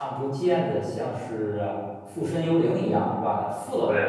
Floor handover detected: No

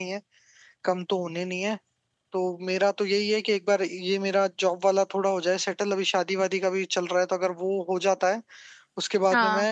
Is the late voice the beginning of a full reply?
No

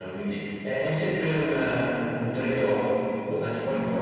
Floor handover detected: Yes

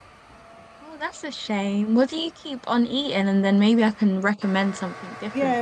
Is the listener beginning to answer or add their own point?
Yes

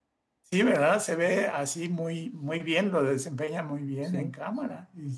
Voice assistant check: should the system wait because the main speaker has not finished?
Yes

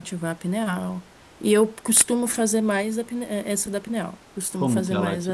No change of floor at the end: No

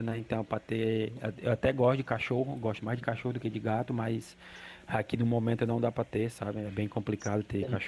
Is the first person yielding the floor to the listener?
No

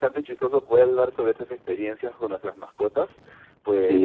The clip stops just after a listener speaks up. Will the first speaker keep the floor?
Yes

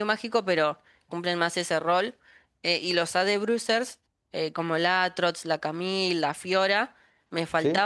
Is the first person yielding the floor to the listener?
No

